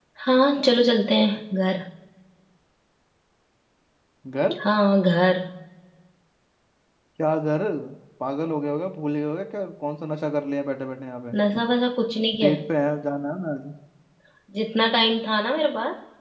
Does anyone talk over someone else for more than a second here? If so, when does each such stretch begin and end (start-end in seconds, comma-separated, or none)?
none